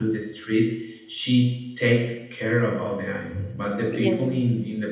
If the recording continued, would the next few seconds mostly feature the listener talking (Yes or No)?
No